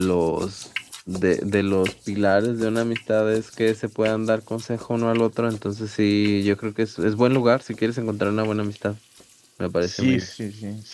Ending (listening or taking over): taking over